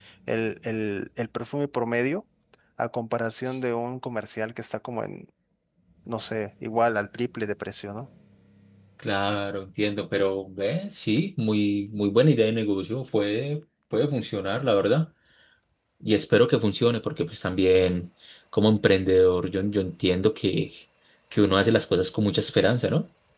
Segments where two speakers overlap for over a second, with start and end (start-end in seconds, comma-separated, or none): none